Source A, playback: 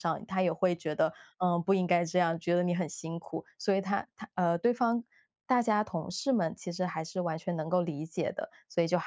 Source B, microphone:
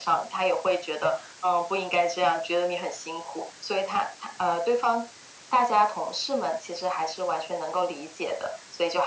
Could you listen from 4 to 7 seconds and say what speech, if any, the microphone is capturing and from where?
echo only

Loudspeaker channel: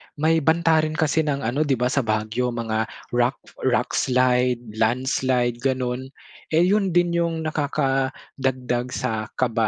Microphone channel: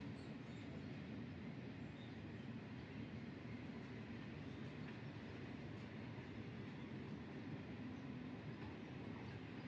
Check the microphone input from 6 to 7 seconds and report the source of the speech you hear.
neither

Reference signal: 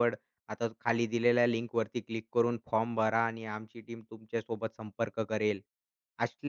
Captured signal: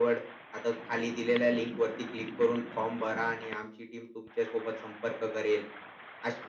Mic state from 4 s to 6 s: echo only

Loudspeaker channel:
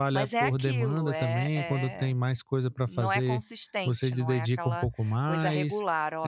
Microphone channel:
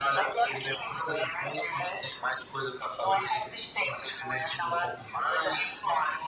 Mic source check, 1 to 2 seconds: echo only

